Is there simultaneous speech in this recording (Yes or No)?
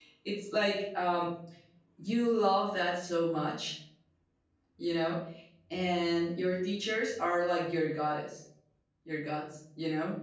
No